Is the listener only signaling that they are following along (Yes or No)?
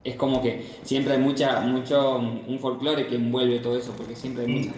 Yes